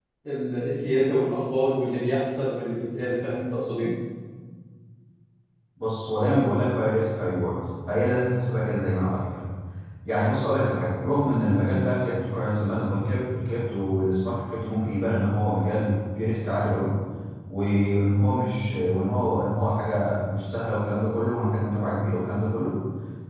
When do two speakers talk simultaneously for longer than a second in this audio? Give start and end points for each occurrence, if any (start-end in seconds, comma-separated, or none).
none